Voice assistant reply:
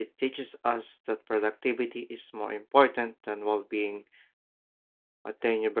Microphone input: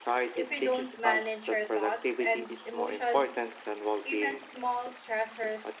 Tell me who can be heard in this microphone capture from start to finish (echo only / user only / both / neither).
both